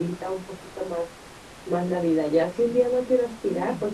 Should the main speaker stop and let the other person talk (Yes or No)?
No